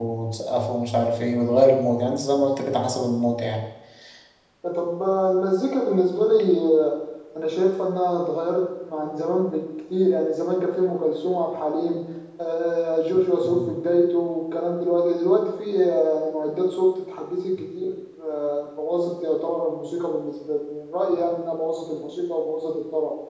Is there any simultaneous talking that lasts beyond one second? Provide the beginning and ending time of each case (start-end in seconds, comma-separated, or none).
none